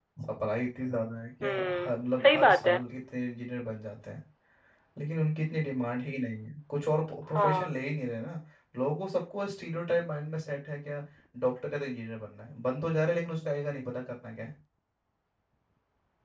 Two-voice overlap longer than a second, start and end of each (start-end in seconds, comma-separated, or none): 1.4-2.8